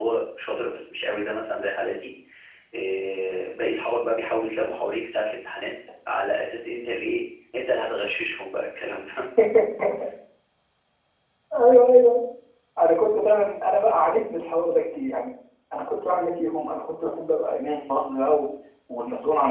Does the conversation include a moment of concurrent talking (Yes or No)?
No